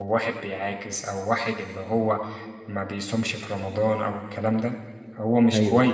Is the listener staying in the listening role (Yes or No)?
Yes